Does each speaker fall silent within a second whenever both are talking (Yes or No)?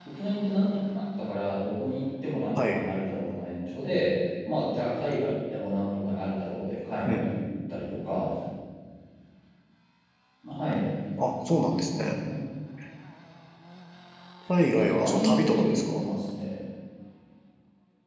No